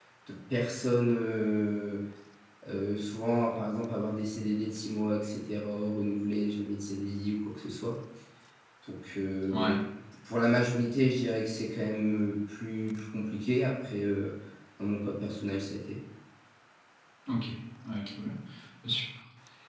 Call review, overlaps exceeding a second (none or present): none